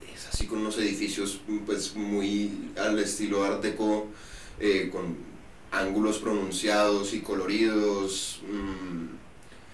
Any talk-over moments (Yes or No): No